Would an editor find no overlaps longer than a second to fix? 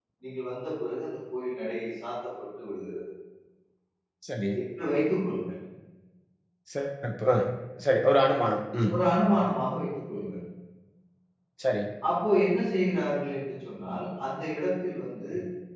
Yes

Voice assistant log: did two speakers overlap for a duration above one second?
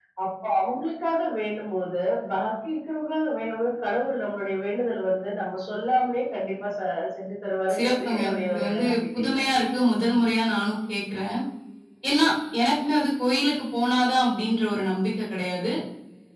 Yes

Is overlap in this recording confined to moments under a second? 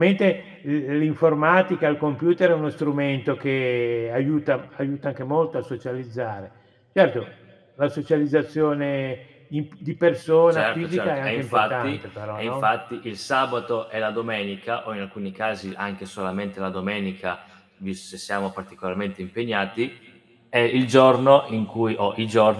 No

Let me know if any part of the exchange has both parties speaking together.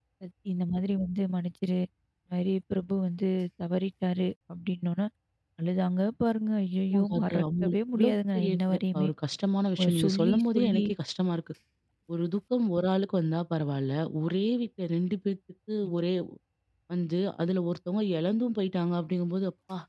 Yes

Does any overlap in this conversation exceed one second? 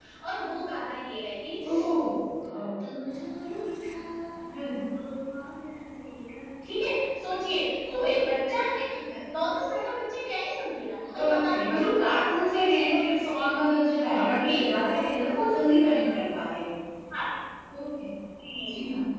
Yes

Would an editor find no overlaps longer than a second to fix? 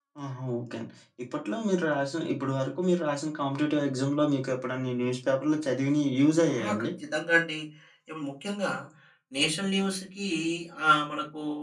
Yes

